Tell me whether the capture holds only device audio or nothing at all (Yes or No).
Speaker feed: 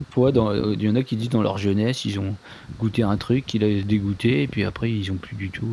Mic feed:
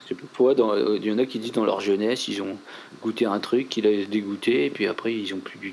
Yes